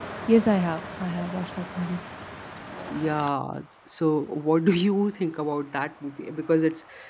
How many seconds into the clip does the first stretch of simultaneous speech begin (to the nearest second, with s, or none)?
none